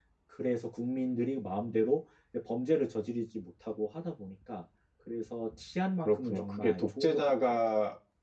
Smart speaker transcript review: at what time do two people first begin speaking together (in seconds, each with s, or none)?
6.0 s